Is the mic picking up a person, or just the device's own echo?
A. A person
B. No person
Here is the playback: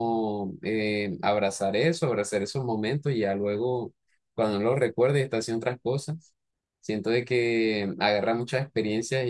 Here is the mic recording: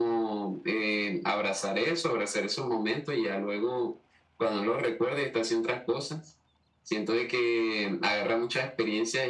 B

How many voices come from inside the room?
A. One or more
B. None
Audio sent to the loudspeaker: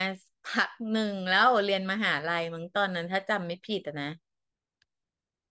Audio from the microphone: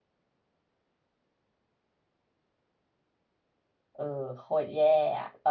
A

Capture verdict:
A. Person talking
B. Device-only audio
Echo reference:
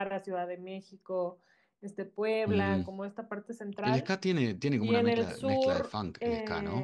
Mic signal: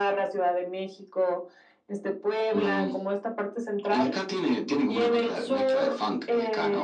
B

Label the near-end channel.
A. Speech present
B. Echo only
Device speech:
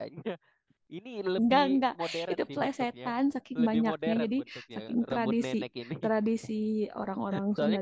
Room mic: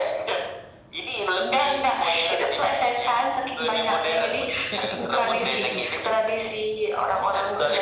A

